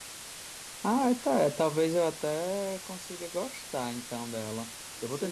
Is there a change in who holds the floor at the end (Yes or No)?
Yes